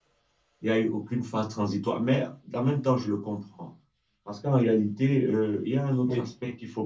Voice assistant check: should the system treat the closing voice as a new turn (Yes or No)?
No